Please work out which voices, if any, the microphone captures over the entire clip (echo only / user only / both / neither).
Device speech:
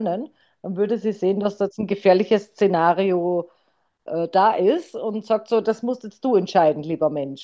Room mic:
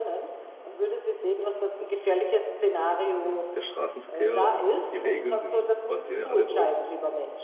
both